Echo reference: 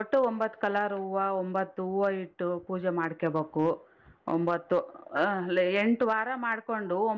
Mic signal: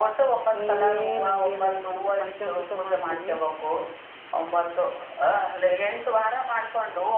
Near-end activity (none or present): present